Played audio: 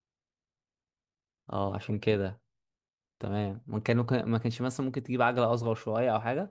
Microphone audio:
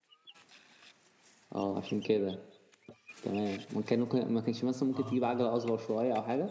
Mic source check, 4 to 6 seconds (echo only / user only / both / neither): both